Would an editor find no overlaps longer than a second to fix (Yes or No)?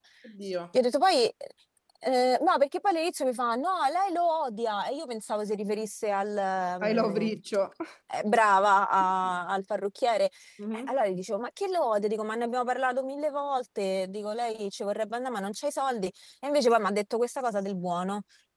Yes